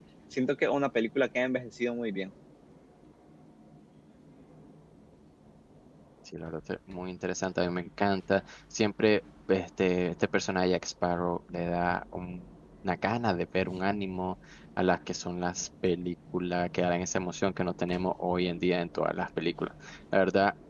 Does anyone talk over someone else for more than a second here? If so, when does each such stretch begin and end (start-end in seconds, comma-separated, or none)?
none